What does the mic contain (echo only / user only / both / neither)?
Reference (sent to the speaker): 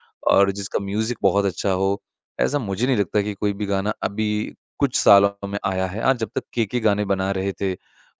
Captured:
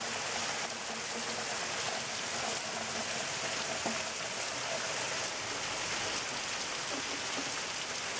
neither